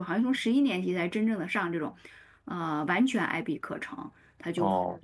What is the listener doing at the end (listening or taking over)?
listening